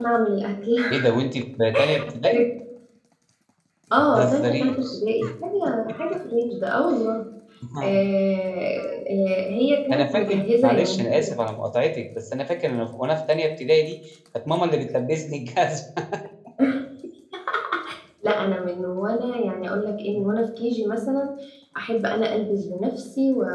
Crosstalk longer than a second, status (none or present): present